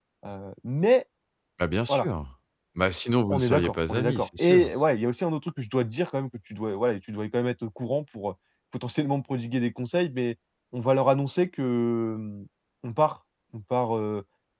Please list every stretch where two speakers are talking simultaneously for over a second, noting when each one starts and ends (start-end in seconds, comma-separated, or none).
3.3-4.7